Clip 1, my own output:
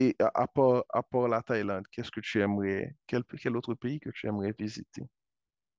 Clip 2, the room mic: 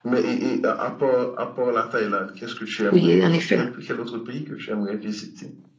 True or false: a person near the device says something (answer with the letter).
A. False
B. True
B